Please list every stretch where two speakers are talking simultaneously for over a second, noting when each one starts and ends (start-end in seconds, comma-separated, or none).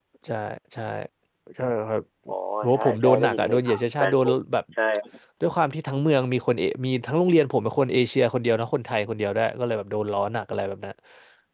2.7-4.3